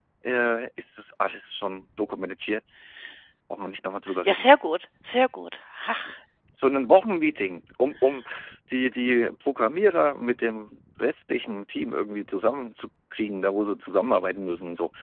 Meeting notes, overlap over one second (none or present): none